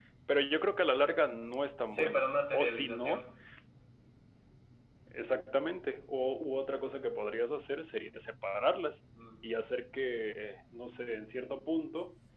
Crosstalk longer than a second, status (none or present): present